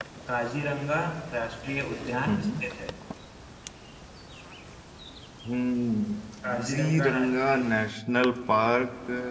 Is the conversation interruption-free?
No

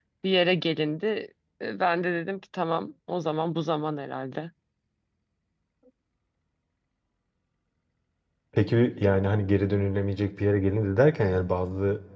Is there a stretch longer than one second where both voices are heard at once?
No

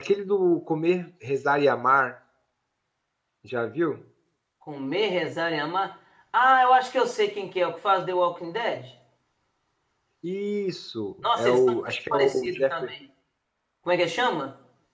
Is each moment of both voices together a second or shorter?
No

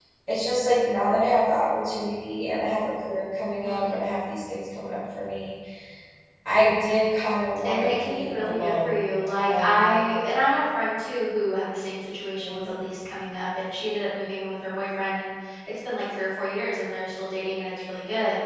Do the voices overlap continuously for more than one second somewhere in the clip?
Yes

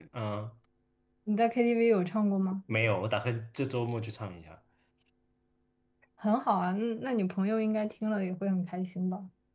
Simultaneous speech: No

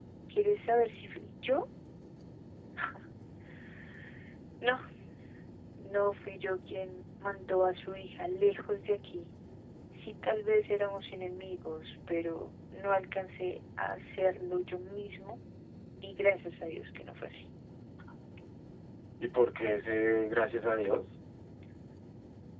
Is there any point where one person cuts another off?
No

